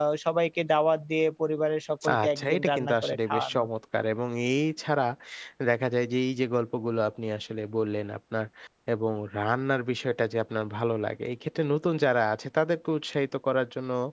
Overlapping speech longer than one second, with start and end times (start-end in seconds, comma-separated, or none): 2.1-3.7